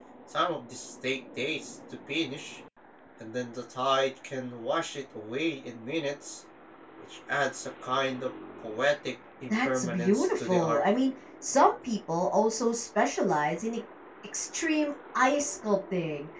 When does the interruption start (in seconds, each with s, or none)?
9.5 s